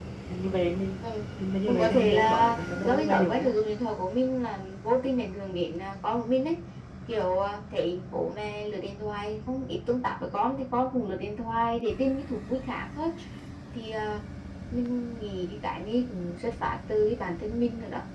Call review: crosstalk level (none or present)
present